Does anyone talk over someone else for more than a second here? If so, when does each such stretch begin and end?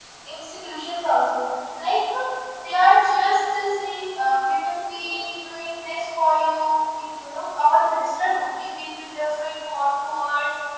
none

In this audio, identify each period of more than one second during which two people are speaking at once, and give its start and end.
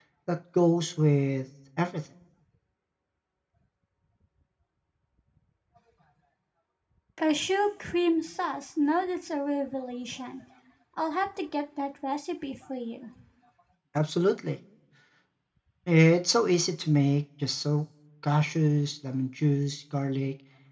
none

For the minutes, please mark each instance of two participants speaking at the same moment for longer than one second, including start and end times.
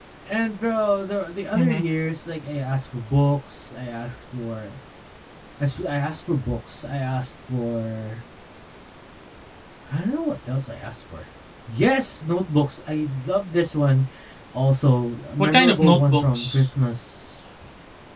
15.4-16.6

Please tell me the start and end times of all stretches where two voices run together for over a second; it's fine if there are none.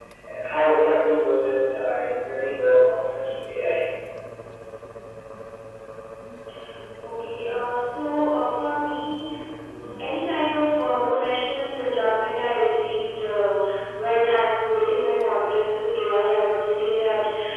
none

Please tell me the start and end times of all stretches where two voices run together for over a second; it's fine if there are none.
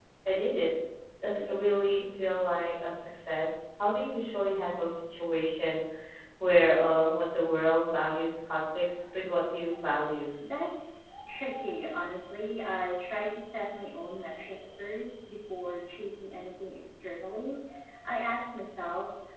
none

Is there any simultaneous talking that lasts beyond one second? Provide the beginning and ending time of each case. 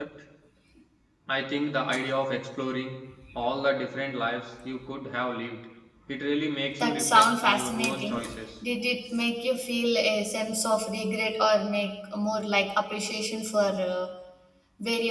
6.8-8.2

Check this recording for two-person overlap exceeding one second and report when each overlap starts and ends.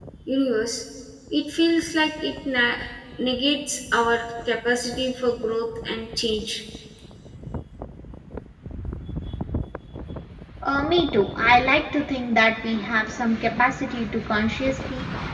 none

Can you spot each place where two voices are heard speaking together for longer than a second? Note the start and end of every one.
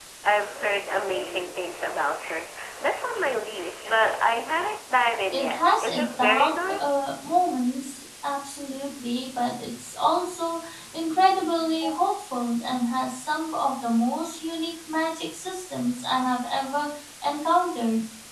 5.3-6.8

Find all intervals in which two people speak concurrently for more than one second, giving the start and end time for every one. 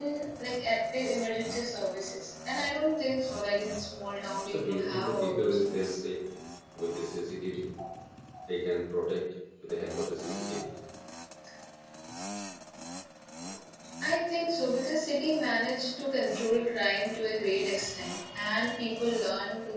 4.5-6.0

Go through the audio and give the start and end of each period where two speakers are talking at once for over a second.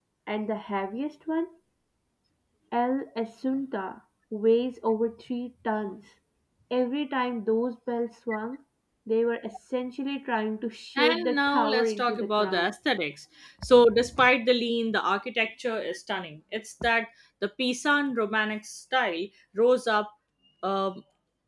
11.0-12.7

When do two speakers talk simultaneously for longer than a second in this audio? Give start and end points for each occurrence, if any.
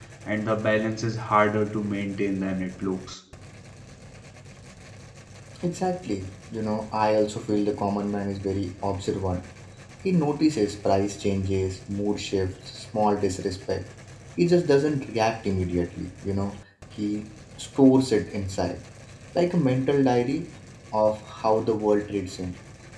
none

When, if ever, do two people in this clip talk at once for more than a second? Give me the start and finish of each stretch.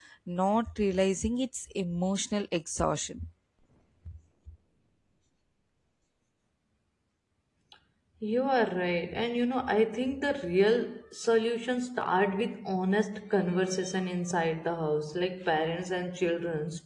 none

